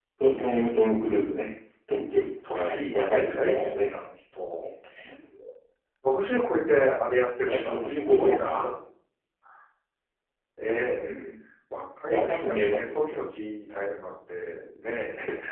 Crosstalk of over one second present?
Yes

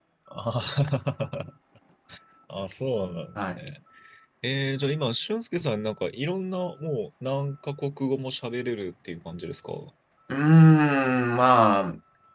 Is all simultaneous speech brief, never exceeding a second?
Yes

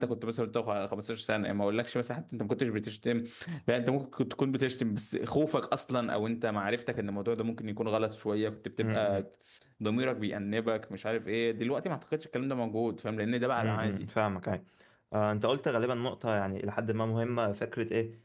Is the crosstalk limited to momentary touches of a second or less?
Yes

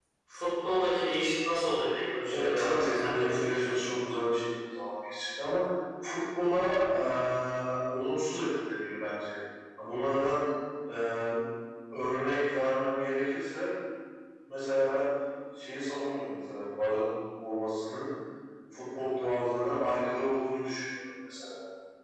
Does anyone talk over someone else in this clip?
Yes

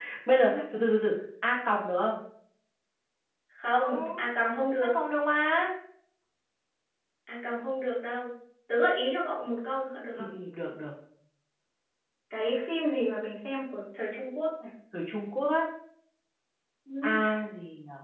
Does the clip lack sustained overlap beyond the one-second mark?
Yes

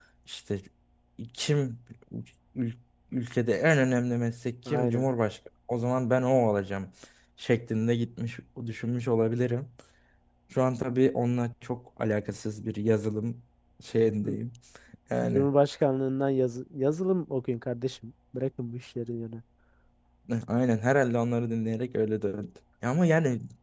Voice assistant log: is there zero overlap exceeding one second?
Yes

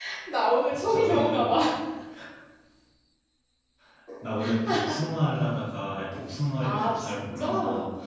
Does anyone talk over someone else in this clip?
Yes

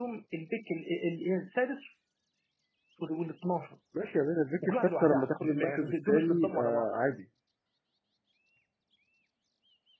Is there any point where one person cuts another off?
Yes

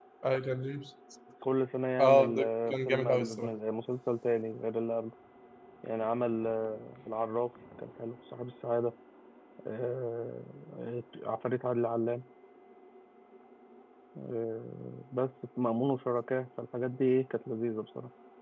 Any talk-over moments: Yes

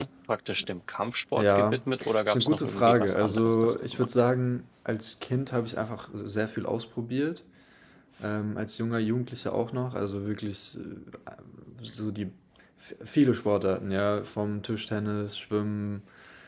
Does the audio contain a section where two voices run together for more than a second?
Yes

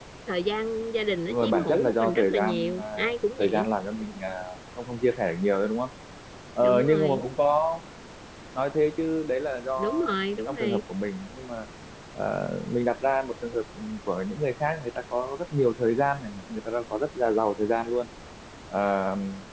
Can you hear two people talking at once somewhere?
Yes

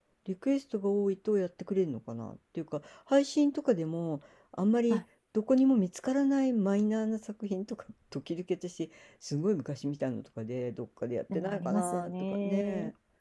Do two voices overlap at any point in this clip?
Yes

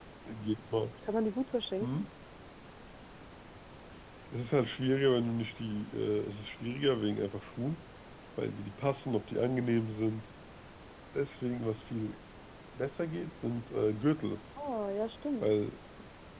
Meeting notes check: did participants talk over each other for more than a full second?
No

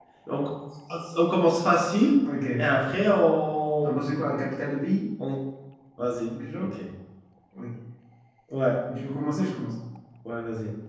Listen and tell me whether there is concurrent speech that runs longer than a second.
No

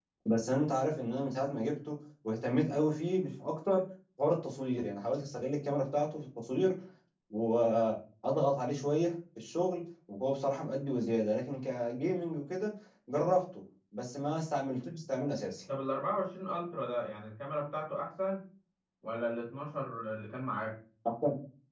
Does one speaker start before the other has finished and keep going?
No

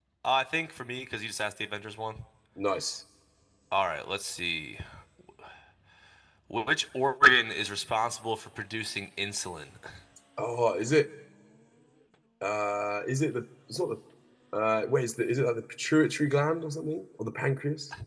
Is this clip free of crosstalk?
Yes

